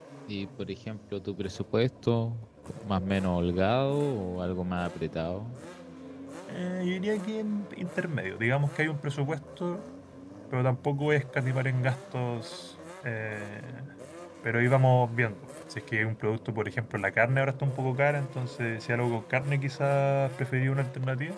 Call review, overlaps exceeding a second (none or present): none